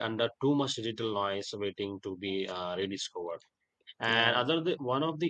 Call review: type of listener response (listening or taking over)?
listening